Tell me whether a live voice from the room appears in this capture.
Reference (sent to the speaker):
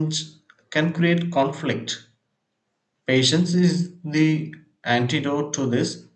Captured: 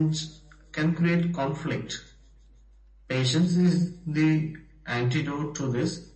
No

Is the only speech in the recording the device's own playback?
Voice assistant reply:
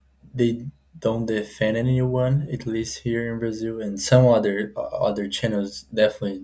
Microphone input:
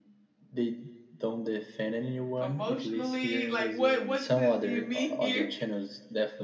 No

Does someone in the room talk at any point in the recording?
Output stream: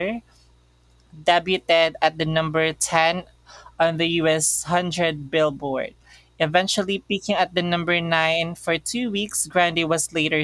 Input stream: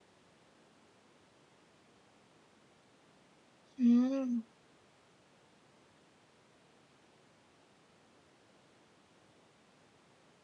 Yes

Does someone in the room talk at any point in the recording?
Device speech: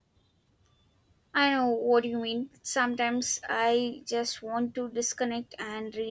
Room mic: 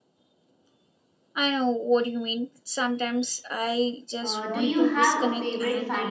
Yes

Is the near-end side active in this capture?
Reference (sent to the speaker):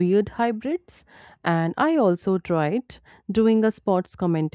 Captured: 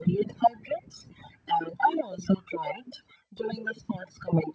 No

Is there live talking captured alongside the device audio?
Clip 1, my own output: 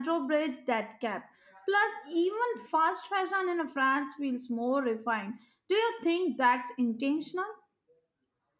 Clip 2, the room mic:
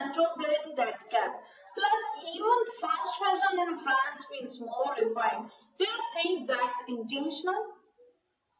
No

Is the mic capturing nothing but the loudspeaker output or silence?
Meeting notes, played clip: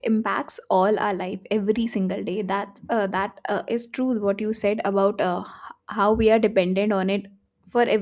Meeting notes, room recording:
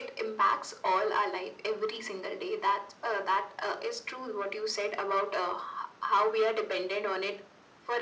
Yes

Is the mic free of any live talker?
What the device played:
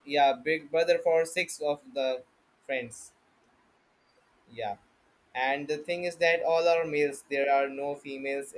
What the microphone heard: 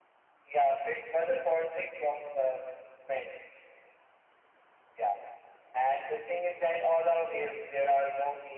Yes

